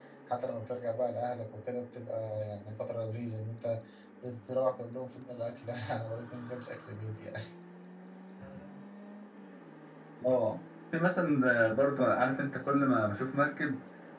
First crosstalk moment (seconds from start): none

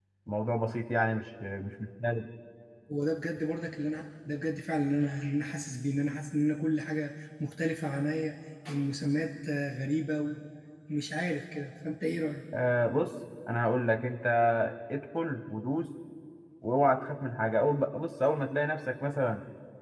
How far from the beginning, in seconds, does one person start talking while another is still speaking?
none

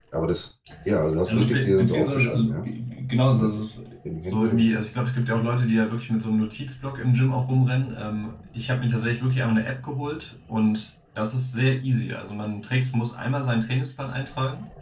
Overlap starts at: 1.3 s

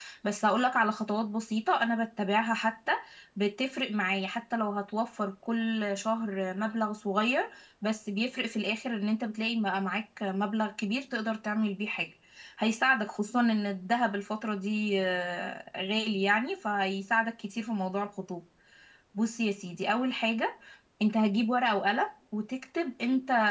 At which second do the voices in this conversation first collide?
none

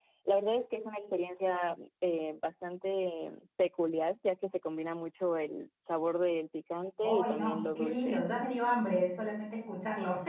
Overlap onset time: 7.0 s

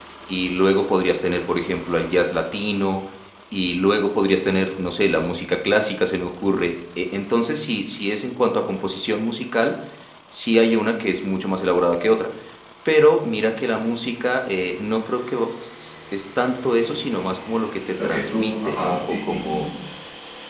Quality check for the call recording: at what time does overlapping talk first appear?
18.0 s

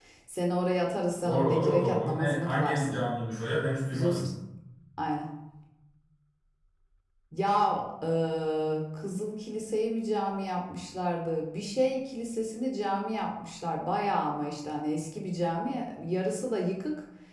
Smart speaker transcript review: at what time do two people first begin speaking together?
1.2 s

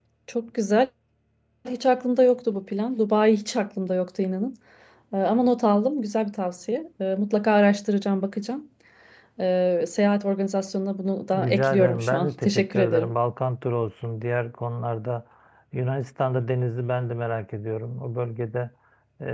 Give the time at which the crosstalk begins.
11.3 s

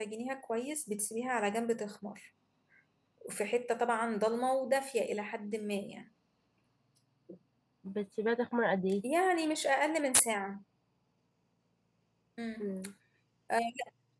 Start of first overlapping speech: none

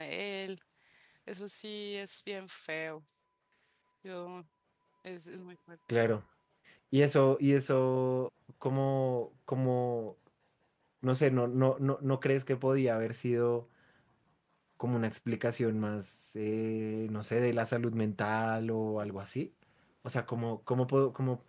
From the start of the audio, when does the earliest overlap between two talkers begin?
none

